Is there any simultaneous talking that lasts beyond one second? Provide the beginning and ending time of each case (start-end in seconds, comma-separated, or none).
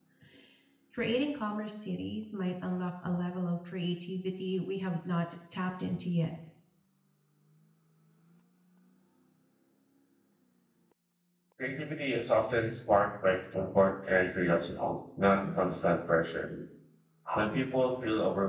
none